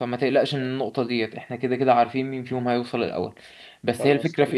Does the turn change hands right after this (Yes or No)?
No